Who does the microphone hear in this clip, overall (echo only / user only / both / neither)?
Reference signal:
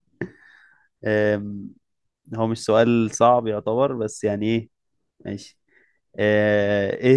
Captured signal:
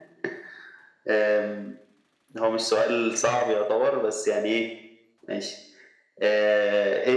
echo only